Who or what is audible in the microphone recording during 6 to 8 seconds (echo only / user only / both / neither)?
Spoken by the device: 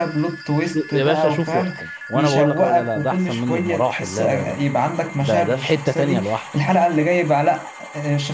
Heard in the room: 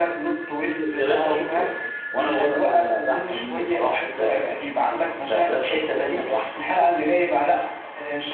echo only